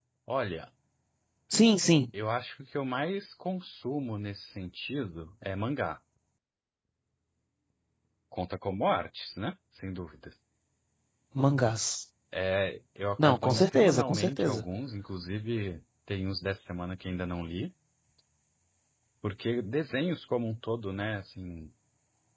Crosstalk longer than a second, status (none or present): present